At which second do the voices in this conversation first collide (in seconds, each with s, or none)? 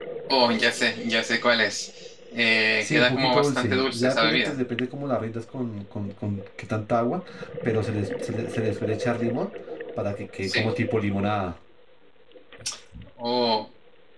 2.8 s